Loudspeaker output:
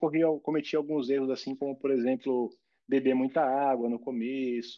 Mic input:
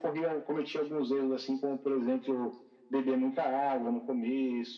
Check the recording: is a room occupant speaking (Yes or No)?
No